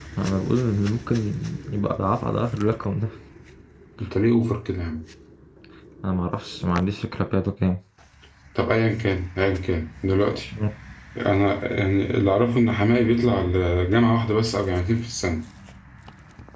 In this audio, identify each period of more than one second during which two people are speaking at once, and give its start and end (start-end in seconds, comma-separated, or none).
none